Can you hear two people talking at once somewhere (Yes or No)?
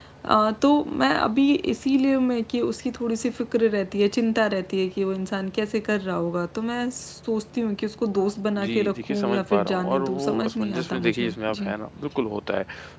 Yes